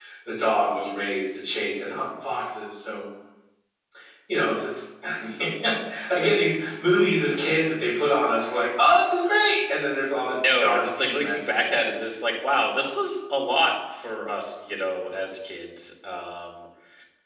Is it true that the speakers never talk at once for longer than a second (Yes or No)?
No